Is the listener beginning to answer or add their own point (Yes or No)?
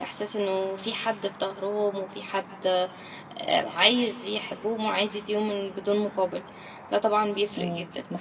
Yes